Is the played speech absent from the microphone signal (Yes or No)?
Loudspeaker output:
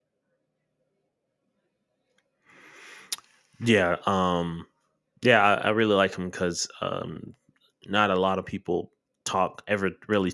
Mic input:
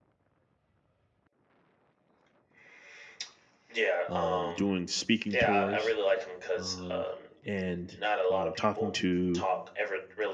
No